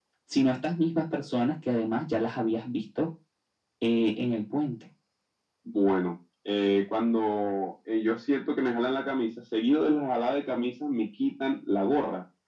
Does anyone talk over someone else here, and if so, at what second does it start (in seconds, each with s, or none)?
none